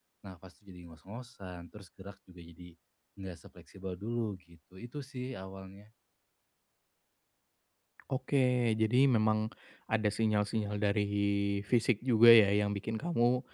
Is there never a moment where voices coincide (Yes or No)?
Yes